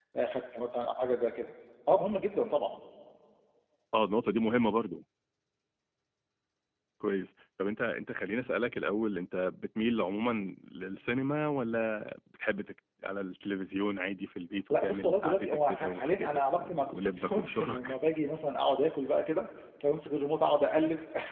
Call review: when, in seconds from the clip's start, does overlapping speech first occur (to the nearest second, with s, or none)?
15 s